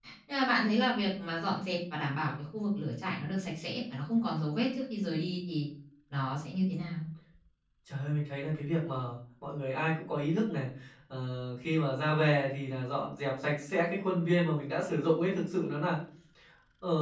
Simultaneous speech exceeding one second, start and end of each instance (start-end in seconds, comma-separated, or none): none